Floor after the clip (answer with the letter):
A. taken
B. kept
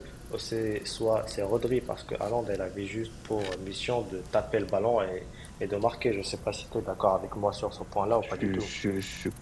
A